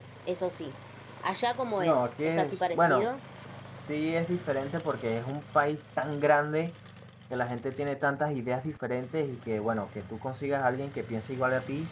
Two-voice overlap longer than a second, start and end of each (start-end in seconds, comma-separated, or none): 1.8-3.1